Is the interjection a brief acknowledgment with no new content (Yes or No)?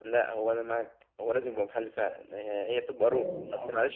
Yes